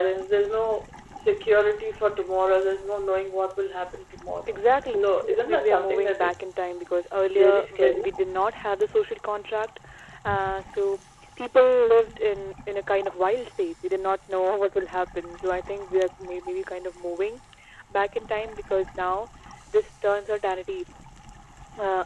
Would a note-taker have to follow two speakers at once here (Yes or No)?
Yes